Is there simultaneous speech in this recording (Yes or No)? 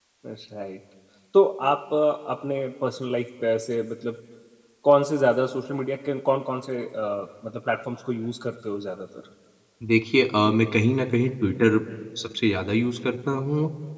No